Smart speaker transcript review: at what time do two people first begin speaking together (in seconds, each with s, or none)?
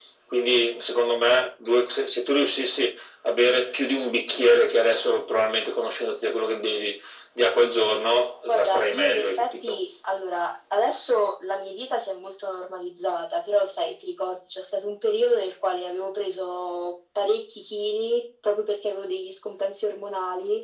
8.5 s